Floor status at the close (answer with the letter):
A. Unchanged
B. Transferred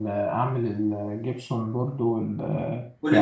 A